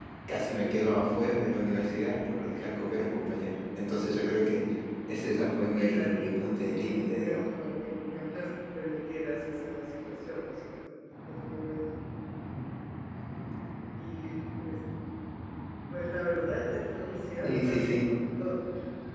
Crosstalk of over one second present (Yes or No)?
Yes